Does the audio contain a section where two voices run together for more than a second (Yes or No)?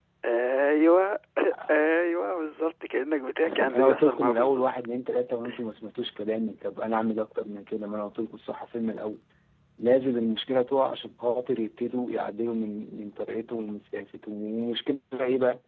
Yes